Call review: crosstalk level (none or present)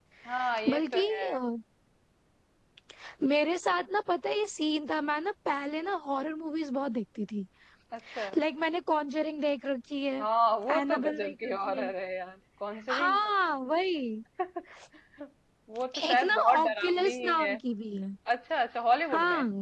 present